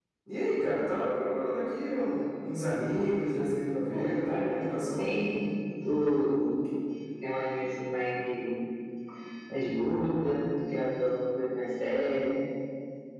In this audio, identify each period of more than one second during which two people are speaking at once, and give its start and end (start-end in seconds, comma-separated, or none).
3.9-5.1